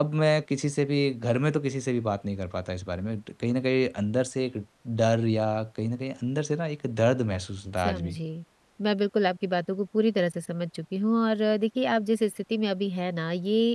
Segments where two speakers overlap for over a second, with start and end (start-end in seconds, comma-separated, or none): none